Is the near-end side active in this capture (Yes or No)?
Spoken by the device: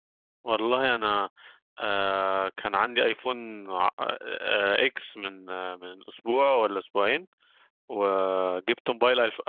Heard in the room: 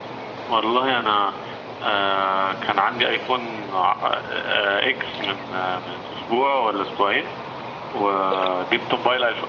No